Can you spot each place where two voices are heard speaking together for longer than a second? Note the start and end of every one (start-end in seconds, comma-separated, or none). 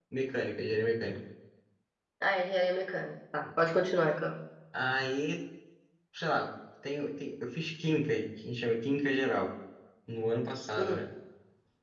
none